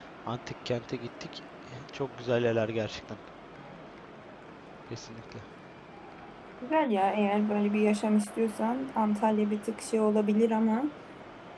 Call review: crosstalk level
none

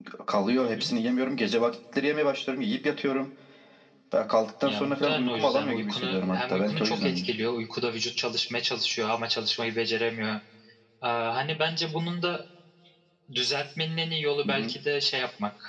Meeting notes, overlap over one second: present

